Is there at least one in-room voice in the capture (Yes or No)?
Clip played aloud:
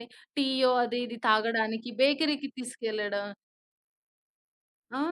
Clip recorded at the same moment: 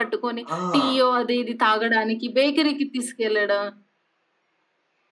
Yes